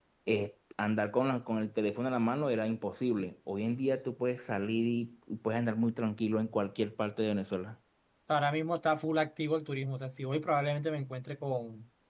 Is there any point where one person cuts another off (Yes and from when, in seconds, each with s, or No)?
No